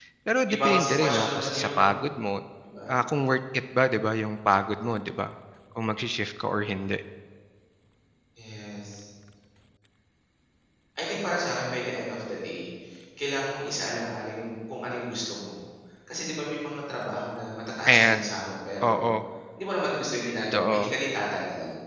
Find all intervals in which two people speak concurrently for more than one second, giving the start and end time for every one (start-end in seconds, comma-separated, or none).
0.5-1.8